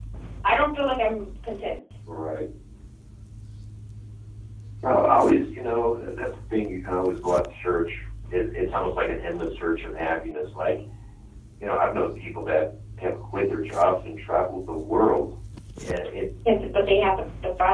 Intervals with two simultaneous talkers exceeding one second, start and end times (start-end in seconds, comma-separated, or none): none